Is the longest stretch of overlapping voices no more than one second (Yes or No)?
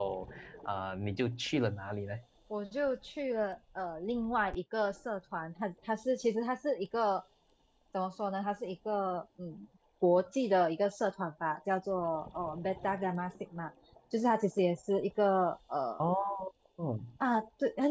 Yes